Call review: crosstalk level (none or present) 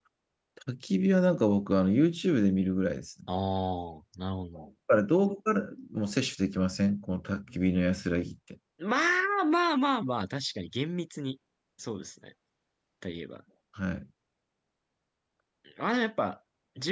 none